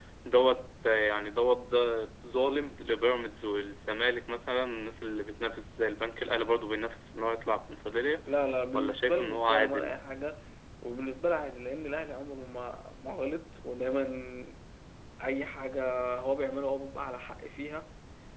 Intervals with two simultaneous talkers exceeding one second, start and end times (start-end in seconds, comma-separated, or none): 8.7-10.0